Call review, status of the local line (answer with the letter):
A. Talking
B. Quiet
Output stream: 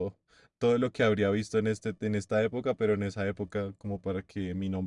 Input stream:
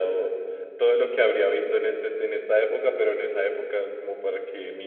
B